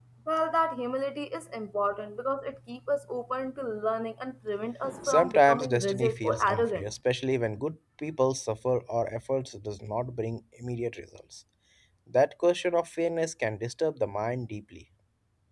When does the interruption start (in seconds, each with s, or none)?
4.8 s